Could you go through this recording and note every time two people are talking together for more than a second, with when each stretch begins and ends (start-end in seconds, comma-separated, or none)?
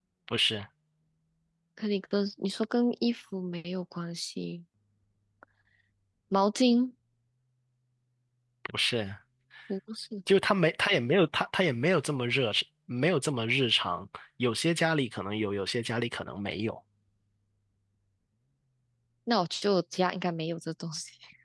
none